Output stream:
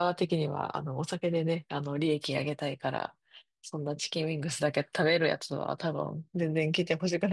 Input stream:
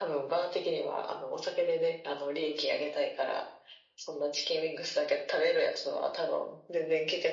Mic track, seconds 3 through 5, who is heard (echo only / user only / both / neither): echo only